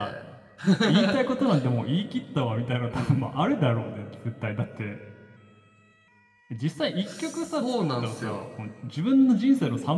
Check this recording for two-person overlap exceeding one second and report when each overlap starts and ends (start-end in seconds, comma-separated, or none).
7.2-8.5